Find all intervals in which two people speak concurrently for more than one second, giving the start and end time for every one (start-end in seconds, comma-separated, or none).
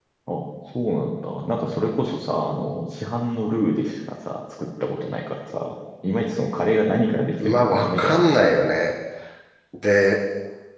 7.5-8.7